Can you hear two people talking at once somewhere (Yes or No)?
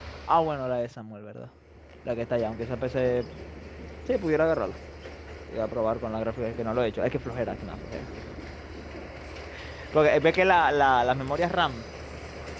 No